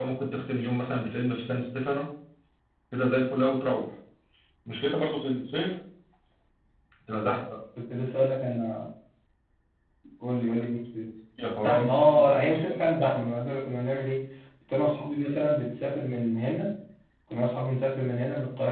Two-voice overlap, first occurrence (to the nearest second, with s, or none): 12 s